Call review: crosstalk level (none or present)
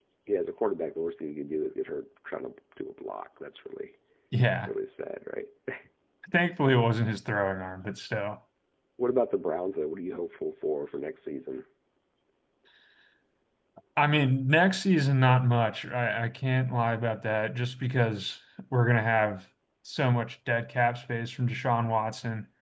none